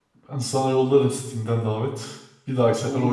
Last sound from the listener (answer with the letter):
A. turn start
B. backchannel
A